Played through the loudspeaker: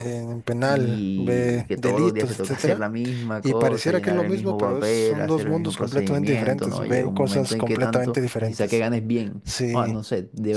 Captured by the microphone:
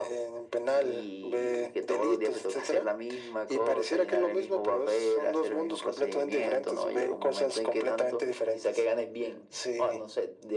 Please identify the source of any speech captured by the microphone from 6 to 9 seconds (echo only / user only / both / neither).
echo only